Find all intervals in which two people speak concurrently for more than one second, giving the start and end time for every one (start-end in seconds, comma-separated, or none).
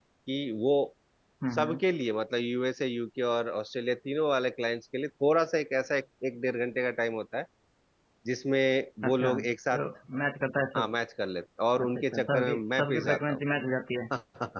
11.8-13.4